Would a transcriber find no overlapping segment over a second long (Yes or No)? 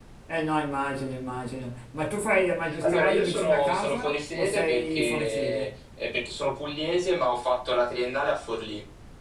No